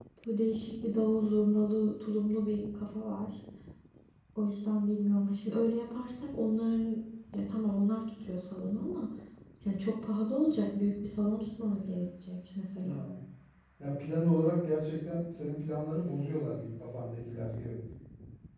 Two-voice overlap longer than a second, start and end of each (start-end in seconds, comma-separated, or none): none